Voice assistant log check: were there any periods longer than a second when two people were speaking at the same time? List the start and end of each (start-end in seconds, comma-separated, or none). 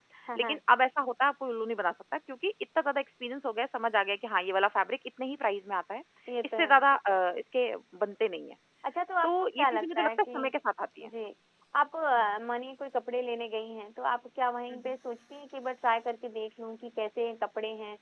9.2-10.5